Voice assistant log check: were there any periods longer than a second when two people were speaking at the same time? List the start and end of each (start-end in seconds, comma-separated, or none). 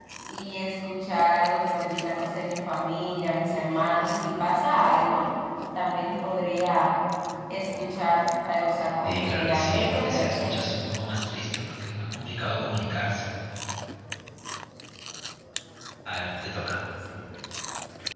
9.0-10.5